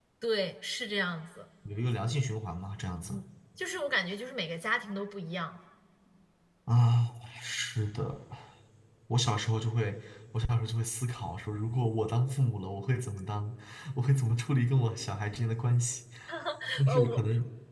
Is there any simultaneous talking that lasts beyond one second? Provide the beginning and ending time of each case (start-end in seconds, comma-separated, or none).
none